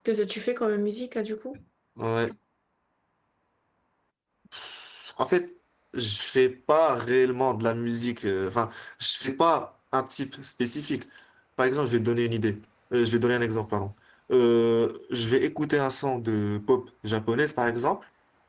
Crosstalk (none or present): none